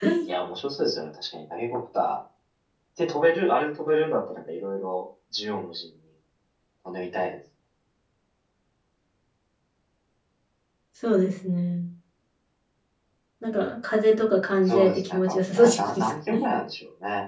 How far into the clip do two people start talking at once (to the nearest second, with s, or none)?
15 s